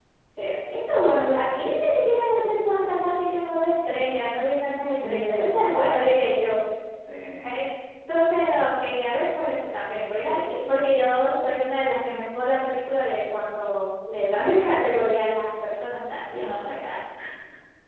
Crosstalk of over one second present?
Yes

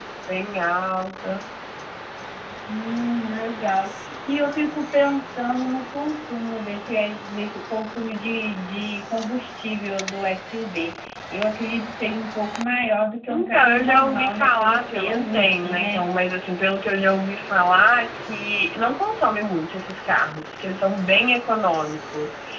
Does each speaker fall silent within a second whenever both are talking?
No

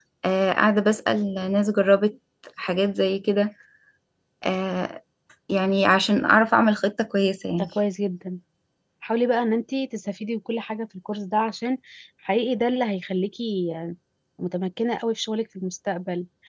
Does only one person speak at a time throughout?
Yes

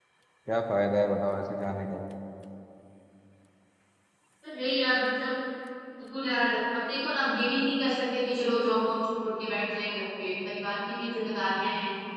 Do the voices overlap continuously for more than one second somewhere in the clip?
No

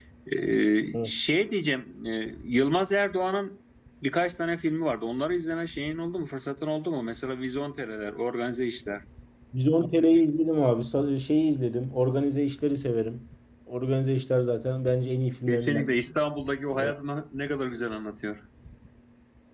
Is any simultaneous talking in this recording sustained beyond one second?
No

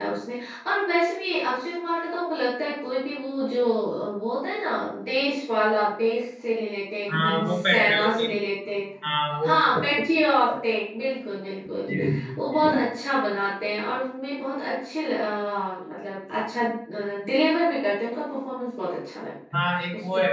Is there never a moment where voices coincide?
No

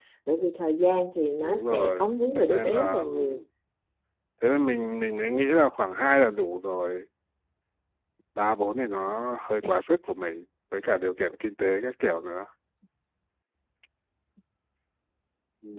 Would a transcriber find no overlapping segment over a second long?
No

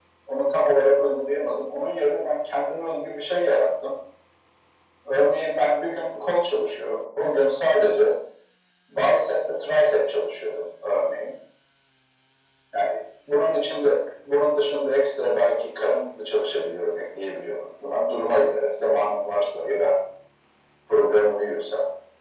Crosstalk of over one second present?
No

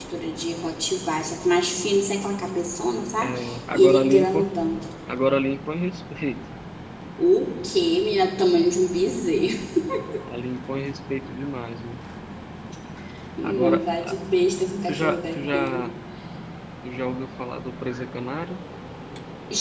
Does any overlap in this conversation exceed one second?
Yes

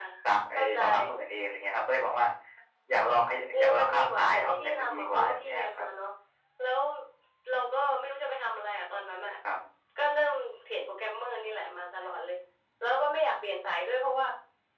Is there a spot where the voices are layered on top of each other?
Yes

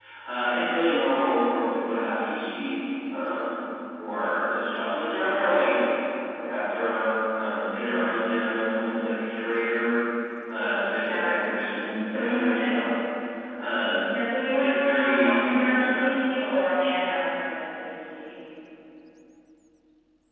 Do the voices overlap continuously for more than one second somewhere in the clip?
Yes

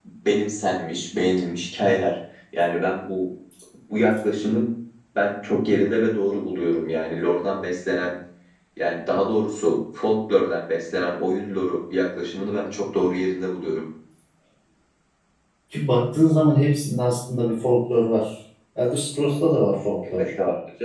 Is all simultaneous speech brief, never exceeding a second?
Yes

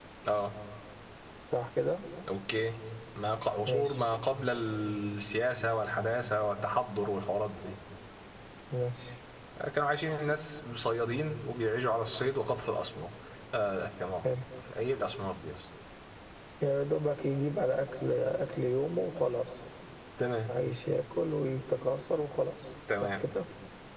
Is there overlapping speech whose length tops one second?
No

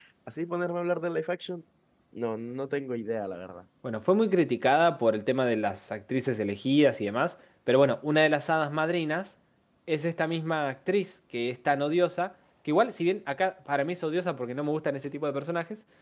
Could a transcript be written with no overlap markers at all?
Yes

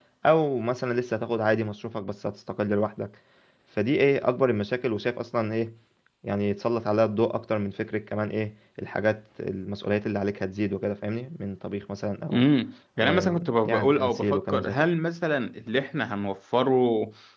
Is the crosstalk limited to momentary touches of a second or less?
No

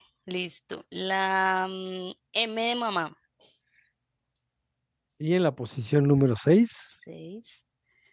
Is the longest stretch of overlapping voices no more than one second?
Yes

